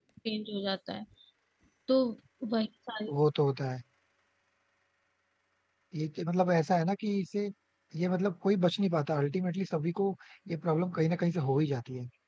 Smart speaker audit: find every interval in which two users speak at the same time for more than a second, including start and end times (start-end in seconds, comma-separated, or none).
none